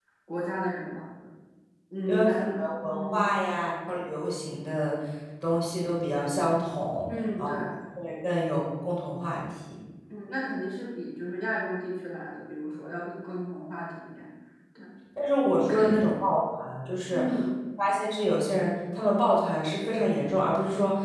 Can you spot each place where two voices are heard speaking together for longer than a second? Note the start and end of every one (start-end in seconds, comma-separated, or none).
2.1-3.3